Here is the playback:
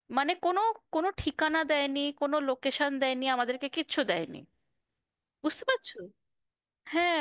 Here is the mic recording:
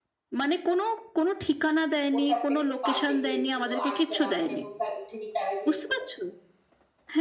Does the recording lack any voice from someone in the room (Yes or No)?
No